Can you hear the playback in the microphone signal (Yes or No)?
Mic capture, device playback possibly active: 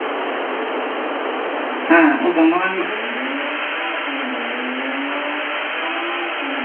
No